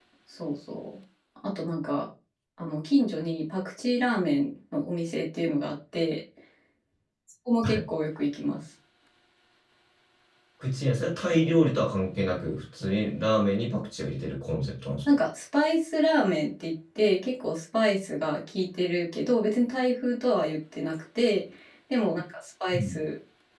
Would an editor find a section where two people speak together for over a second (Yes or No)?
No